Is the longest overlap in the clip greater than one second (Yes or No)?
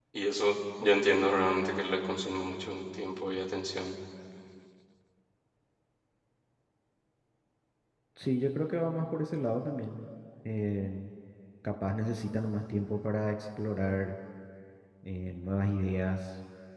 No